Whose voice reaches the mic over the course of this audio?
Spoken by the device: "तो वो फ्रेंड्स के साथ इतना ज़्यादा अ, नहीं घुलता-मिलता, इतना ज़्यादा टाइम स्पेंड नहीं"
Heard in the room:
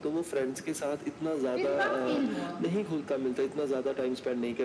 both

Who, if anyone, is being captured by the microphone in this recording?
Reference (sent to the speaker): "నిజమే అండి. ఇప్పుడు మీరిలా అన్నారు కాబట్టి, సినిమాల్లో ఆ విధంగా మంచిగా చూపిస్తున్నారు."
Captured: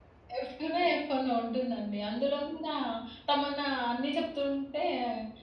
user only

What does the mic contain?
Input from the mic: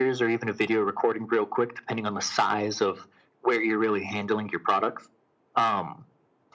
echo only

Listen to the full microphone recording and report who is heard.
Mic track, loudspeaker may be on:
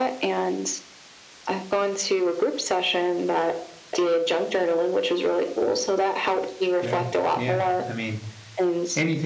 both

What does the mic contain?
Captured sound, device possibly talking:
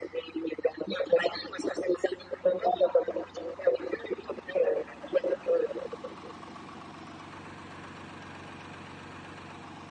echo only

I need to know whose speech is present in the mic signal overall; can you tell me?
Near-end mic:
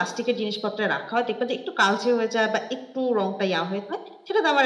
echo only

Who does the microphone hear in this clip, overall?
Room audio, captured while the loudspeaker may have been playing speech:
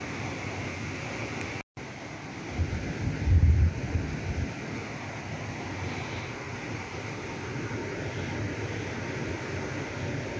neither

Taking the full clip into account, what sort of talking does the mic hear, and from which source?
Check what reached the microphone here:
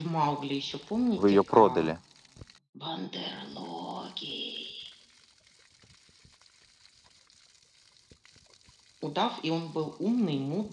both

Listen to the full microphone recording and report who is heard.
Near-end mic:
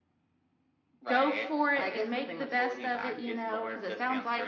both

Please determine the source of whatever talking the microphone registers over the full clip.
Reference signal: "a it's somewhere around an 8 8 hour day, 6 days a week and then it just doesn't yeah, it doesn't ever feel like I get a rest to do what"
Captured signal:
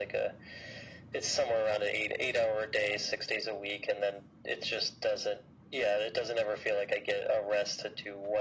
echo only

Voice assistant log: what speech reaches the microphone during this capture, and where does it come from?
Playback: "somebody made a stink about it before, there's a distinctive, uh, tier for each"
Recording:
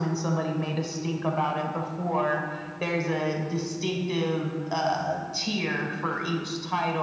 echo only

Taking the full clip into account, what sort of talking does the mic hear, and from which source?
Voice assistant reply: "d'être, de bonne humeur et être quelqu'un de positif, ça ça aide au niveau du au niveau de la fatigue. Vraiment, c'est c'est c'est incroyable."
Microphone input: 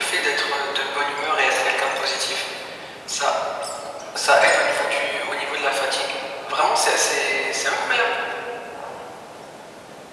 echo only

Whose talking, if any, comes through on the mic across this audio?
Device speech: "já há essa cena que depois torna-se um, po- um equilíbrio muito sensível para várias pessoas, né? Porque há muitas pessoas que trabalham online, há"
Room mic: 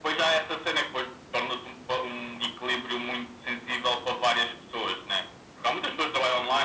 echo only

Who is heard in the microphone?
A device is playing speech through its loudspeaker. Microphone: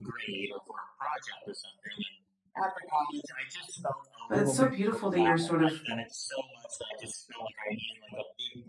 both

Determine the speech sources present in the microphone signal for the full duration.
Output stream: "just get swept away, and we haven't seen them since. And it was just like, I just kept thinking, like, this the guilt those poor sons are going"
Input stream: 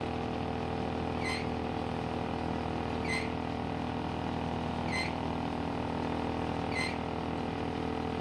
neither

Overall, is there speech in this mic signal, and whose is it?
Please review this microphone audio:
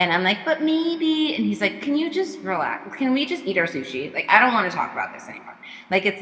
user only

